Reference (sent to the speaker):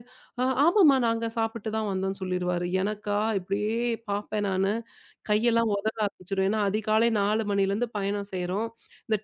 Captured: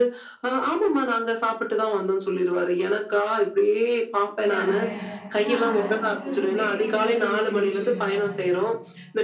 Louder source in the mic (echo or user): echo